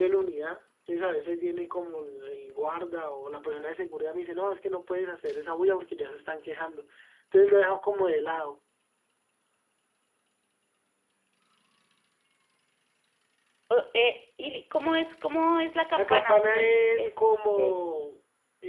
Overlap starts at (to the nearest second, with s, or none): 16 s